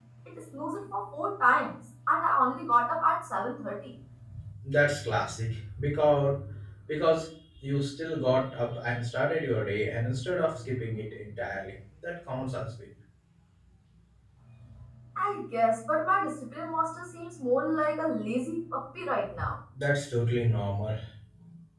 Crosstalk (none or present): none